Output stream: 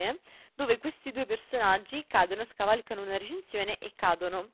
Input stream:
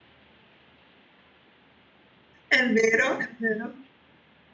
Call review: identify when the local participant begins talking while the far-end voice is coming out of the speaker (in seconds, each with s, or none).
2.5 s